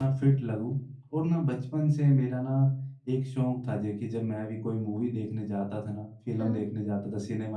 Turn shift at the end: No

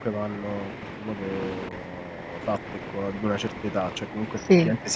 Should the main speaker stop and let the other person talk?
No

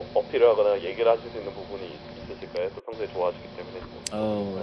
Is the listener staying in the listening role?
No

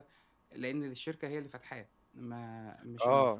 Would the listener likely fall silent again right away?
No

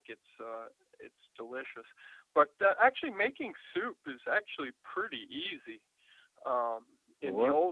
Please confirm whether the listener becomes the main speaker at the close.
Yes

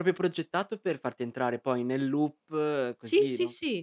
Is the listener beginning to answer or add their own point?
Yes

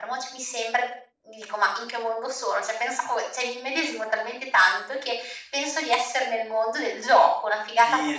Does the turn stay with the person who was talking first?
No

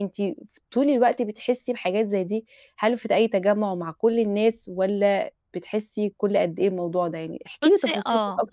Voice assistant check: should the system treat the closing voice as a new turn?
Yes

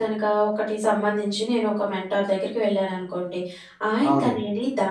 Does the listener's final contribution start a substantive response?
No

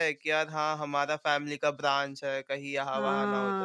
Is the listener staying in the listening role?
No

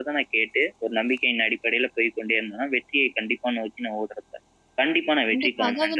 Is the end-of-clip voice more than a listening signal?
Yes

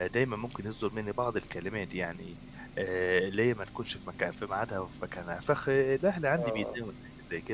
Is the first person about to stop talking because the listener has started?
No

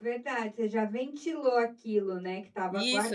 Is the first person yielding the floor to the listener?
Yes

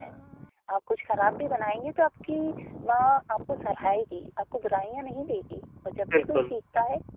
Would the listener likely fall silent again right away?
Yes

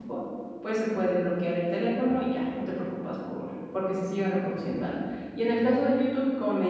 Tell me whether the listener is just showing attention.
Yes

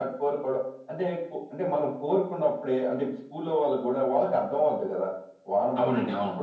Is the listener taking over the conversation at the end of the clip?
No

